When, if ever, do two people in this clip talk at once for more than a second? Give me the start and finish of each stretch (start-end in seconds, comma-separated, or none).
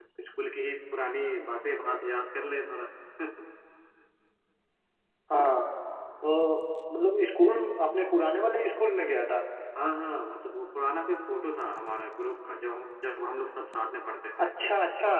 none